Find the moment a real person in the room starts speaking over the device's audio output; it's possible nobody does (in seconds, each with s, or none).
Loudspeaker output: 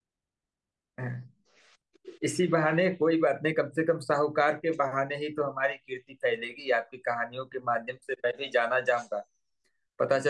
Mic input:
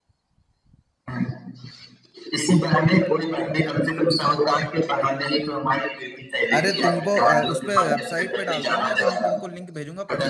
6.5 s